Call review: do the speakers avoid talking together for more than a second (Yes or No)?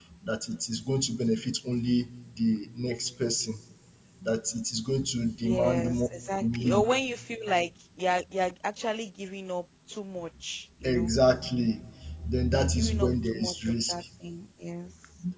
No